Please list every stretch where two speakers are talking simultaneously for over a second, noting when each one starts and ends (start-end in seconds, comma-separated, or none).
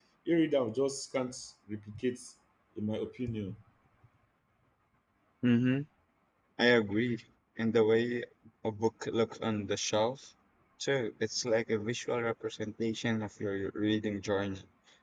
none